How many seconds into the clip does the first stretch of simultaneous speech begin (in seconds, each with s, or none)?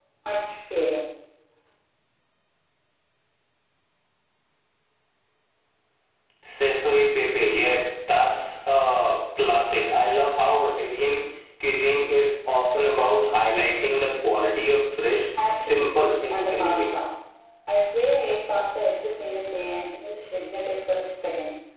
15.3 s